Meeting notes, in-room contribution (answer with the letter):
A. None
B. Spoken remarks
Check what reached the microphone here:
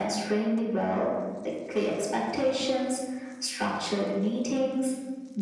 A